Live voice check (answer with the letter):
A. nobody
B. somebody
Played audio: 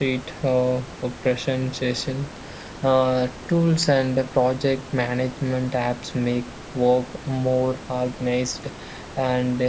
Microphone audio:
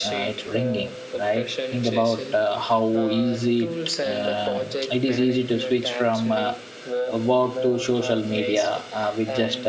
B